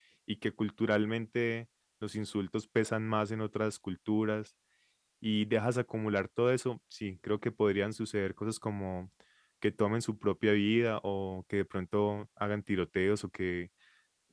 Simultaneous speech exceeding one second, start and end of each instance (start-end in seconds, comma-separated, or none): none